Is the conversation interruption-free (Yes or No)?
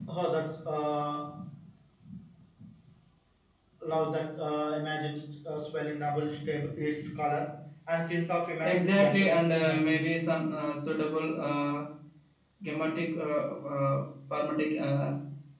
No